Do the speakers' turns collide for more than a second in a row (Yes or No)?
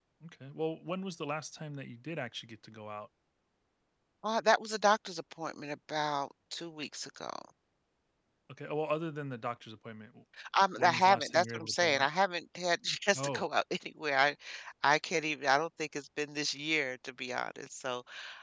Yes